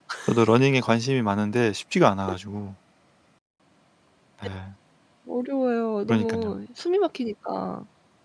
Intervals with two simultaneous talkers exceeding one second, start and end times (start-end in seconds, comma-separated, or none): none